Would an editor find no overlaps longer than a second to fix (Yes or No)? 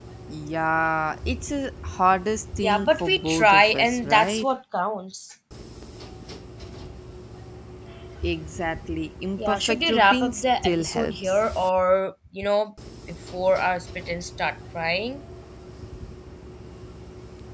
No